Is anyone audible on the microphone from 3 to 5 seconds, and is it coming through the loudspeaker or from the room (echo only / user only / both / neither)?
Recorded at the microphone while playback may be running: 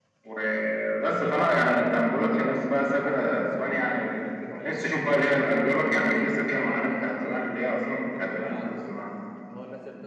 both